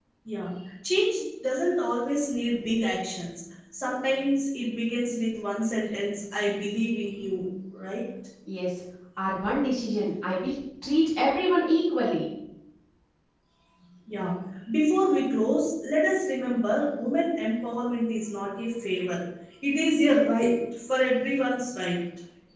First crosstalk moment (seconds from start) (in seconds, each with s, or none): none